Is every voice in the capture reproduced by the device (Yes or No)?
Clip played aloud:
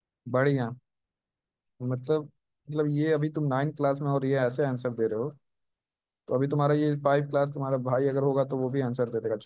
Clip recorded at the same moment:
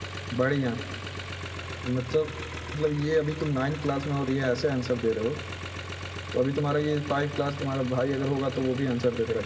Yes